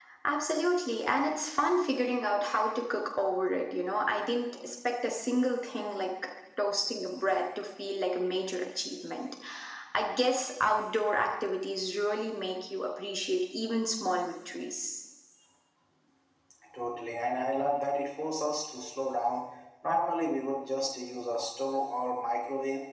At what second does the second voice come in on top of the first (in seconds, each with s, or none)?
none